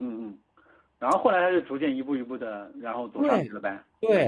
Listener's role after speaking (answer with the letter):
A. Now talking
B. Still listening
A